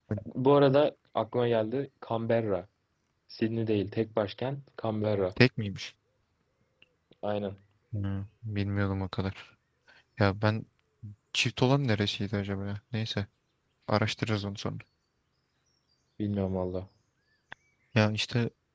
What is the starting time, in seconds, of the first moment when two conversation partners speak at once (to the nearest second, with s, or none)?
none